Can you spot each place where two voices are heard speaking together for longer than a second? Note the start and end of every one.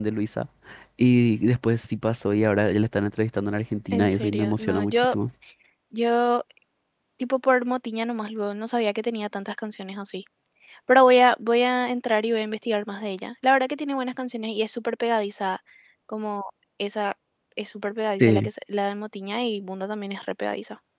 3.9-5.2

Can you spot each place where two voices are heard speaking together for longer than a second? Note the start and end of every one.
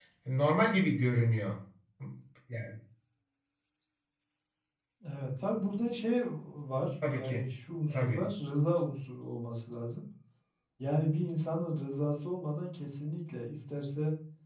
none

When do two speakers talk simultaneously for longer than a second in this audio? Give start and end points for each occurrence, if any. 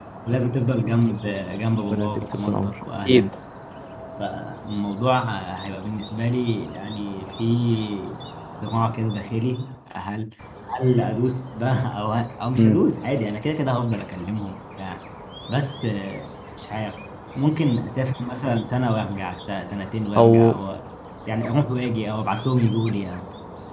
1.9-3.3

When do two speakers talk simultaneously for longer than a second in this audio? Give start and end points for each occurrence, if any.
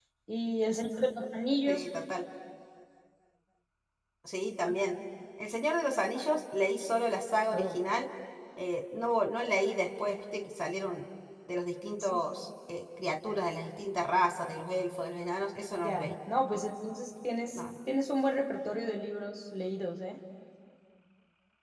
none

